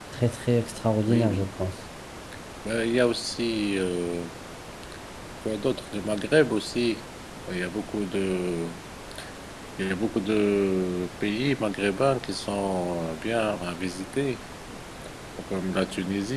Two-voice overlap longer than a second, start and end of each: none

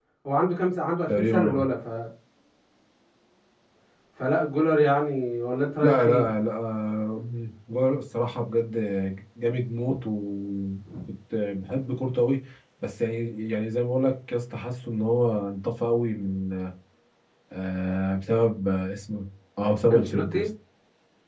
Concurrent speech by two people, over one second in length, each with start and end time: none

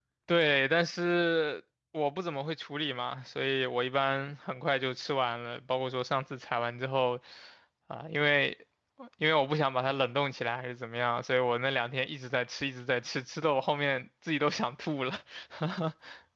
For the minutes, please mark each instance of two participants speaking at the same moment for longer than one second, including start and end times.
none

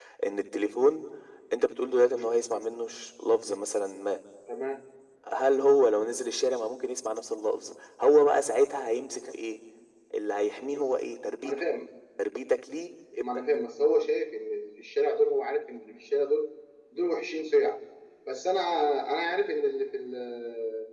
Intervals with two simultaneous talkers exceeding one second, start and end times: none

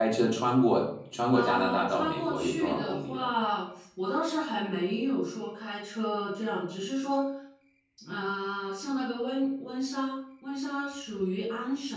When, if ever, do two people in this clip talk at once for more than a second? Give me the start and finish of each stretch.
1.3-3.3

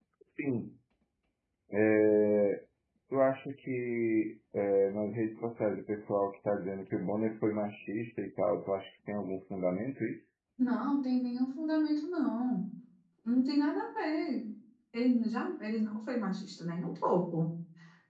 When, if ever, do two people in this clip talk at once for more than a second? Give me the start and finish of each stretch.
none

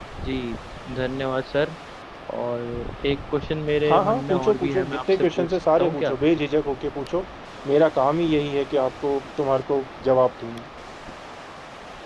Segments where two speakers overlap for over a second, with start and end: 3.9-6.1

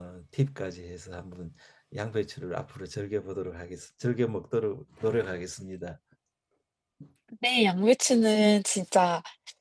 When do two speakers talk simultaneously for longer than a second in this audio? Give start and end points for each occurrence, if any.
none

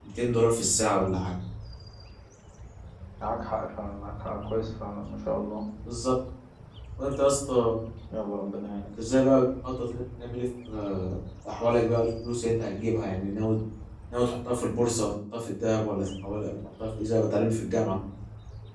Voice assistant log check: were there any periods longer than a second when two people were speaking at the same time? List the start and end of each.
none

